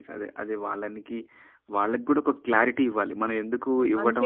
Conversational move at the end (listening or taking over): listening